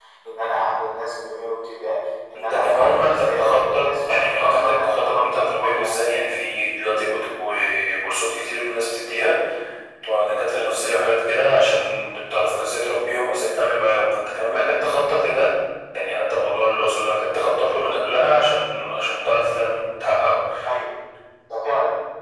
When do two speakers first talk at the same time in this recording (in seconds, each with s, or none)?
2.3 s